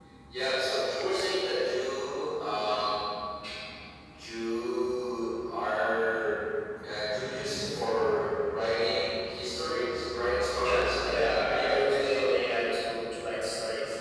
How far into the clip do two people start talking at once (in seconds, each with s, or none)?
10.6 s